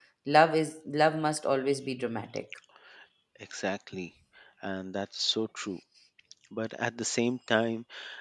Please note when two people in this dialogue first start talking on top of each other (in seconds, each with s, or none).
none